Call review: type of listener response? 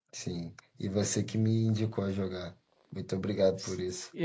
taking over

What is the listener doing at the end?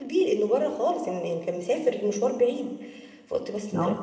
listening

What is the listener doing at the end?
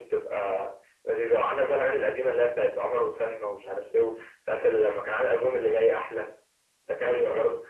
listening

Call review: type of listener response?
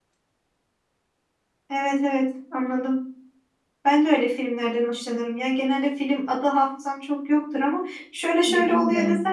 listening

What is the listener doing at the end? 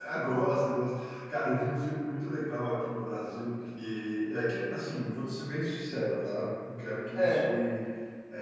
listening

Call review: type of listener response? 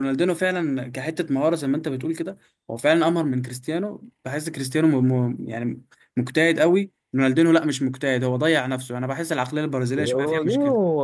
taking over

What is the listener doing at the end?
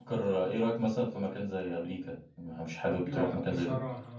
taking over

